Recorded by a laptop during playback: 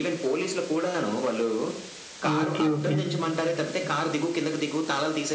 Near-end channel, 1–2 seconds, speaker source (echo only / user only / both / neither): echo only